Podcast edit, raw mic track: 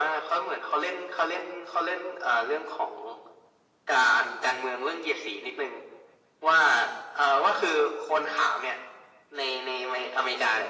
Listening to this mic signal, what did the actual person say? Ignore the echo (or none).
none